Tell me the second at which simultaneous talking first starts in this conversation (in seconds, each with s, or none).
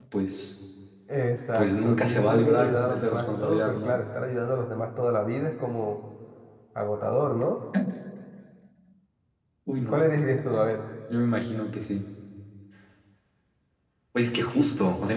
1.6 s